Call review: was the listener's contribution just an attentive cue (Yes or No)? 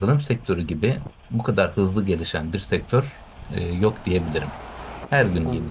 Yes